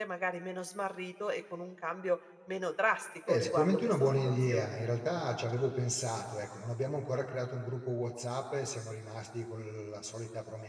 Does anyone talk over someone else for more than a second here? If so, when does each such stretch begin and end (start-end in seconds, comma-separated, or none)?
3.3-4.8